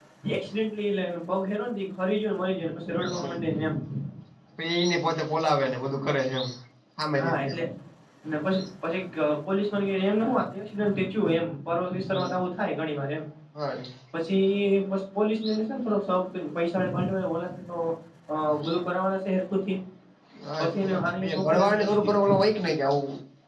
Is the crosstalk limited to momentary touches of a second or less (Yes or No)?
No